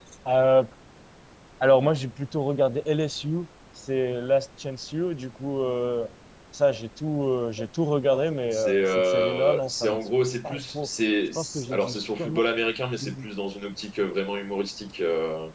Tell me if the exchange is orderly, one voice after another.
No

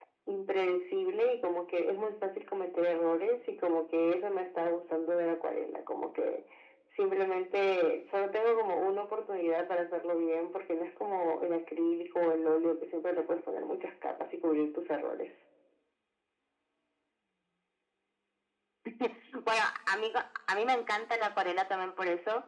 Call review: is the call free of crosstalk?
Yes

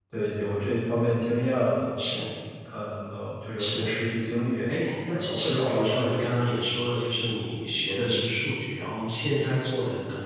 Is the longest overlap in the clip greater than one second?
Yes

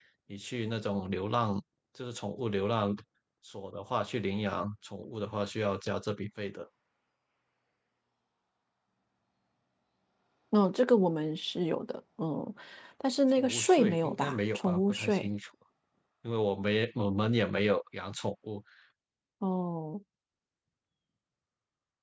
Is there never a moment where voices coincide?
No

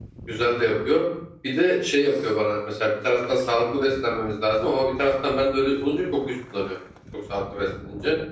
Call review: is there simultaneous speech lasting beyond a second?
No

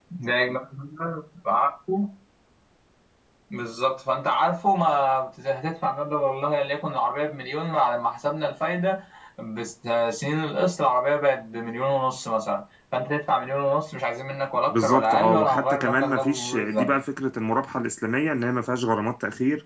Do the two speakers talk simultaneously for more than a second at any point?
Yes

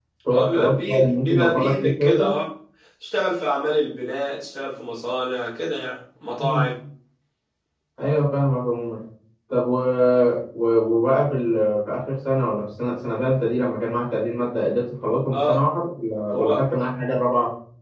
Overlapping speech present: Yes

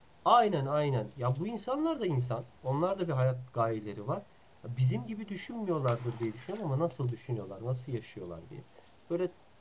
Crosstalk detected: No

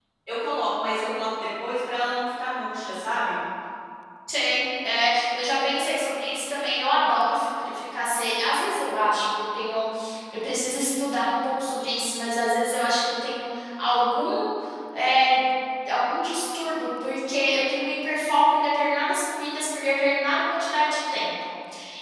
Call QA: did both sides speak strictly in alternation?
Yes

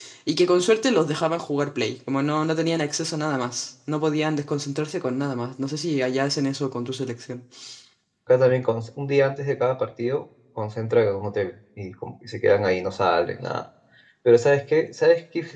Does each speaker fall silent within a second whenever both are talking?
Yes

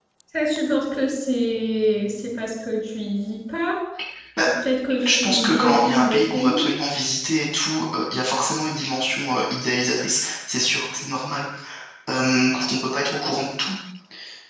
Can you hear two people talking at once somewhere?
Yes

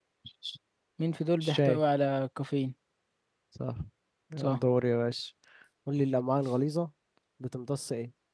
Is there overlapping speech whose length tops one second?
No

